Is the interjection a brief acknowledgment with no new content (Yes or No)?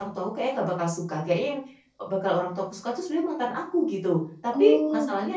Yes